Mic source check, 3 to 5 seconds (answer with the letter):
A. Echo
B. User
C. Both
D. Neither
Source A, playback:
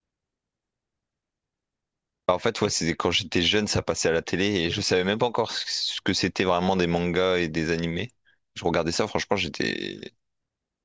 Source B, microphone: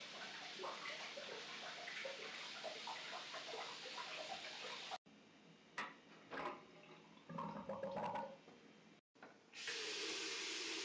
D